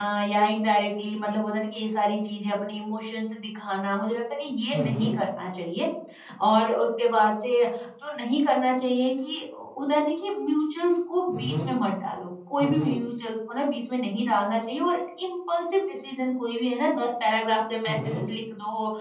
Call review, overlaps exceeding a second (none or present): none